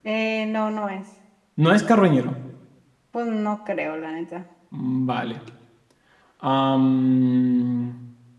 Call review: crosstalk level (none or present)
none